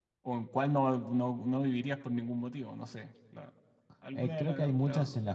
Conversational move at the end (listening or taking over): taking over